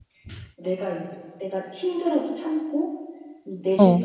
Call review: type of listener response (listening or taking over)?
listening